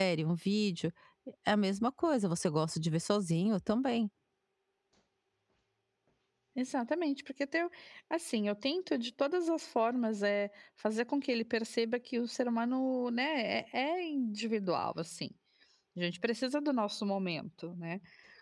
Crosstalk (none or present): none